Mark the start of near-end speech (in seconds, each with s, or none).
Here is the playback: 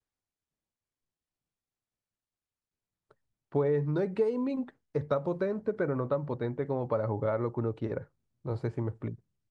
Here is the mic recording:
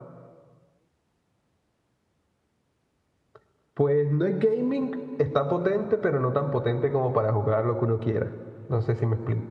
none